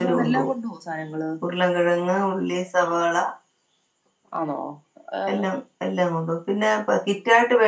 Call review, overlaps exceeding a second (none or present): none